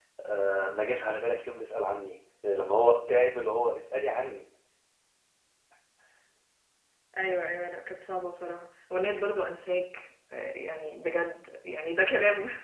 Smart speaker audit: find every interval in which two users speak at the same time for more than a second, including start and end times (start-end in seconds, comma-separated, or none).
none